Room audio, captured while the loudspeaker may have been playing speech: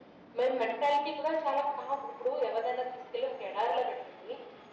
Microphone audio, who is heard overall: echo only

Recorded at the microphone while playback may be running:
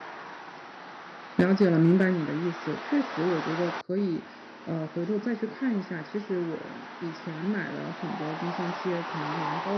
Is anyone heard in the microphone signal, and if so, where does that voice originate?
user only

